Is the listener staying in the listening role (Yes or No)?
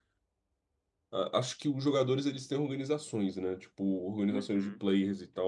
Yes